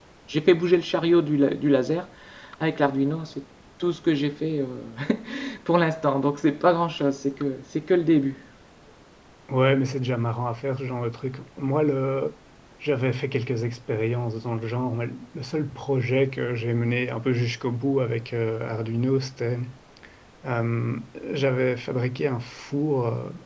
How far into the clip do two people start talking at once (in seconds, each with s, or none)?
none